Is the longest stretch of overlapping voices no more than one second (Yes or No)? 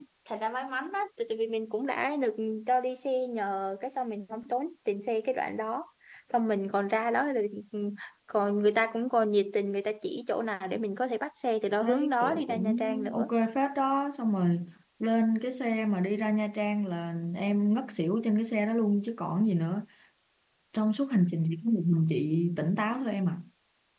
No